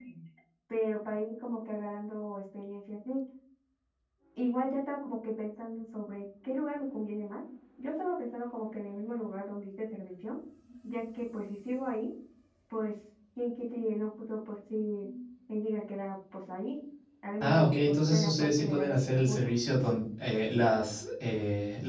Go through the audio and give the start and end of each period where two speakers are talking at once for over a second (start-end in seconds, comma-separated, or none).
17.4-19.4